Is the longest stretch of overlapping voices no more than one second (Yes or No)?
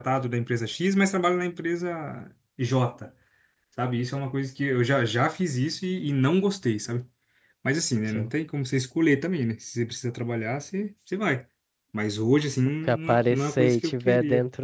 No